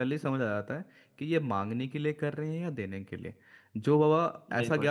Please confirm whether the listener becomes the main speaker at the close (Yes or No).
No